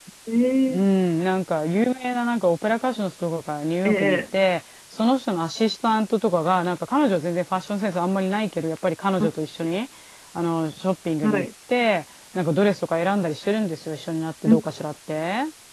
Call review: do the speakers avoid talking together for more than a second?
Yes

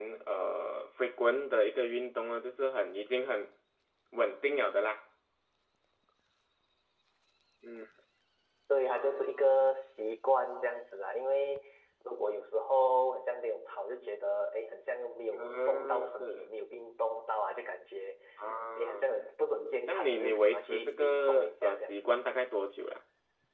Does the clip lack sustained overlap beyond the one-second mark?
No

